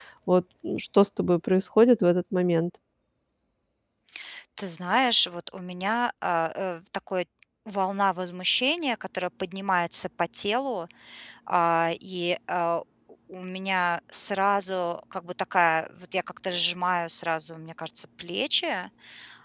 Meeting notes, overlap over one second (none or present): none